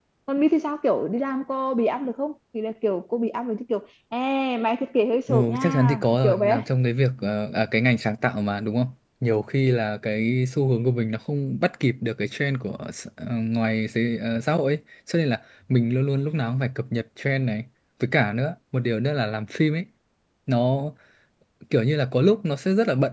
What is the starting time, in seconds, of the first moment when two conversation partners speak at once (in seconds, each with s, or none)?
5.3 s